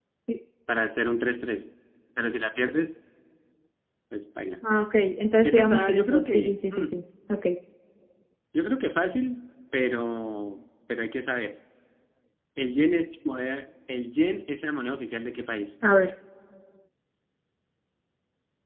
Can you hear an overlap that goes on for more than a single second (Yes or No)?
Yes